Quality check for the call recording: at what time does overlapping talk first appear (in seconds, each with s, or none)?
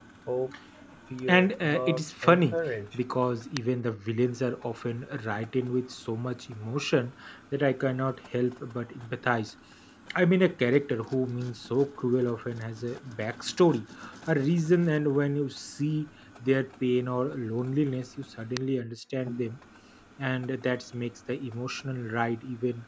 1.3 s